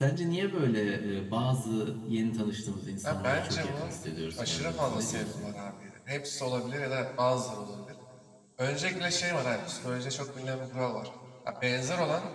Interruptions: present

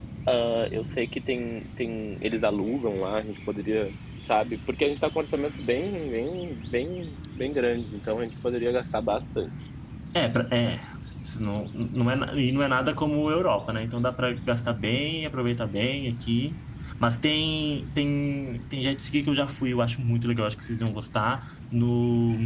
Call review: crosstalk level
none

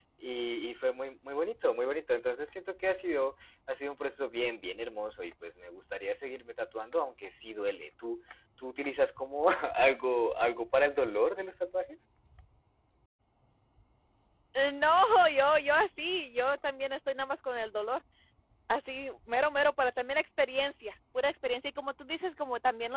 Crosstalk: none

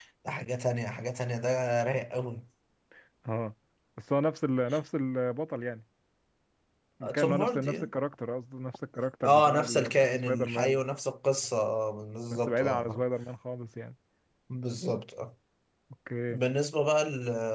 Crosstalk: present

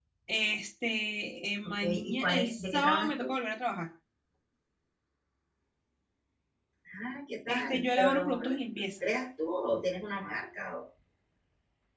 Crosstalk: present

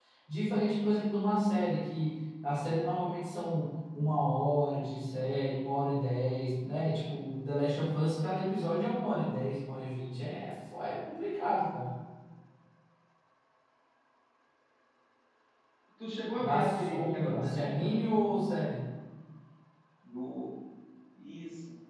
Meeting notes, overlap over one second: present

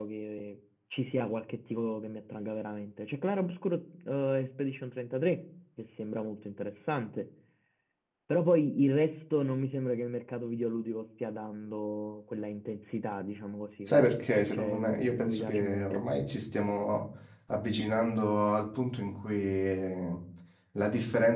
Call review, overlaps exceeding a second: present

